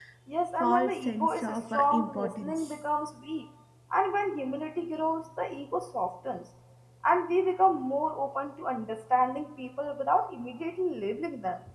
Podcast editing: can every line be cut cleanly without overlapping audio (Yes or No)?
No